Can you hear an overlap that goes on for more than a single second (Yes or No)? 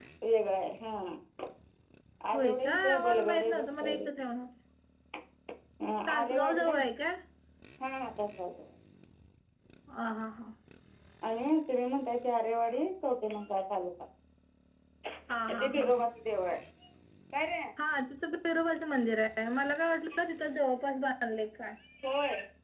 Yes